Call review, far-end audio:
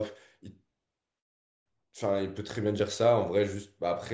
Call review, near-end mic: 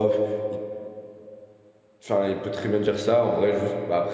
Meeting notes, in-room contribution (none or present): none